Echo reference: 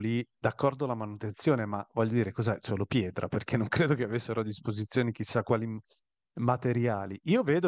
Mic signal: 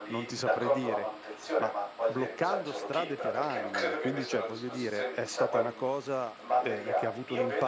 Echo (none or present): present